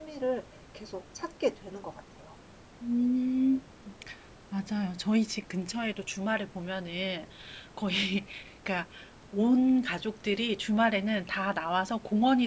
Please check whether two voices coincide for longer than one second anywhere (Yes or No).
No